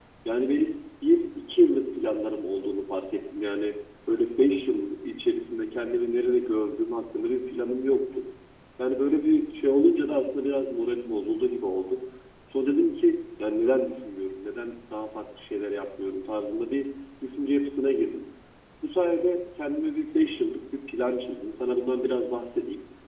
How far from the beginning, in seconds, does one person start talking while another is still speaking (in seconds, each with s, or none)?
none